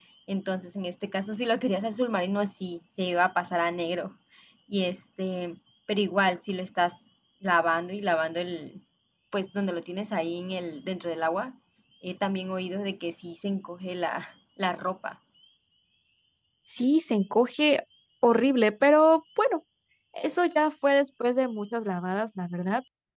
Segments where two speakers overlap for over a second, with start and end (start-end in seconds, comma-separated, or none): none